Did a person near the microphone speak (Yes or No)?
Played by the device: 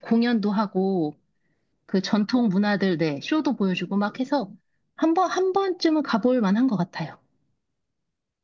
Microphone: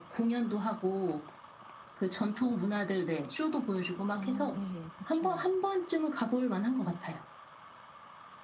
Yes